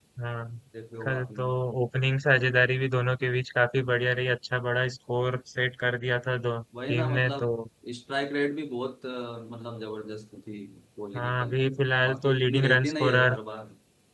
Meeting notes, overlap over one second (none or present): present